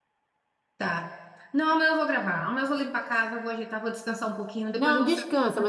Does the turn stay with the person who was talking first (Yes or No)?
No